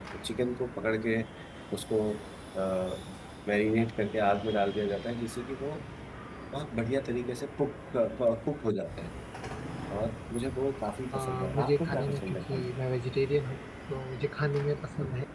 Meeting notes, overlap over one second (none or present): present